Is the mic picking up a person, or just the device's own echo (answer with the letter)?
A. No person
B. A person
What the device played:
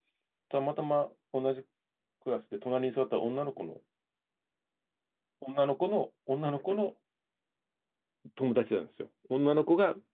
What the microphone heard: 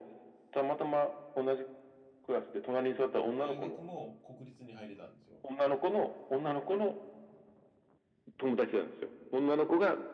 B